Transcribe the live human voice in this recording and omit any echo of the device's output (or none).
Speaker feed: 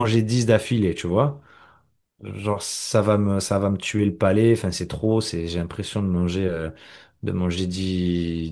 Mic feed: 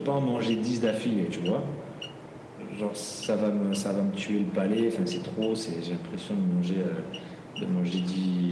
none